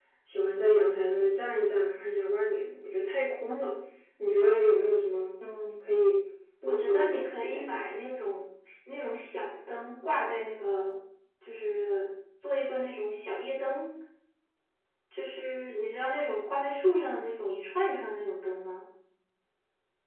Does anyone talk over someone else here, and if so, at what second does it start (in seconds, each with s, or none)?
6.6 s